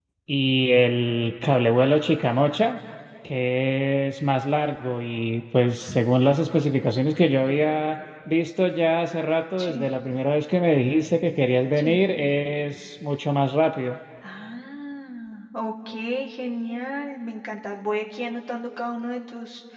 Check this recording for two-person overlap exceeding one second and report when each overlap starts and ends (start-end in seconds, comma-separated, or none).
none